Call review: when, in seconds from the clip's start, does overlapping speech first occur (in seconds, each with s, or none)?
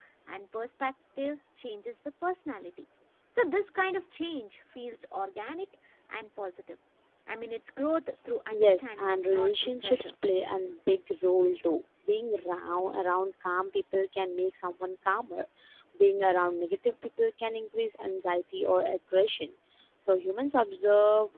8.5 s